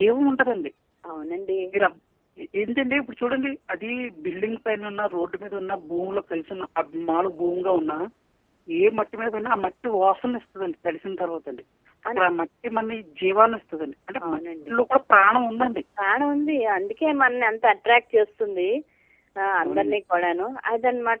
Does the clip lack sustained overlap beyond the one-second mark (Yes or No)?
Yes